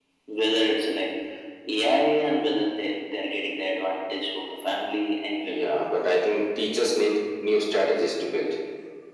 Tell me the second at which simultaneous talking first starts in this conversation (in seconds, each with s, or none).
none